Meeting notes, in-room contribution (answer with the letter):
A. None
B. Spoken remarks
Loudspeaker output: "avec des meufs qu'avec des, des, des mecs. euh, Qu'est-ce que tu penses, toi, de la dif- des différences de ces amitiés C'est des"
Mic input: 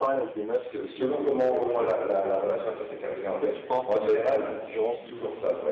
B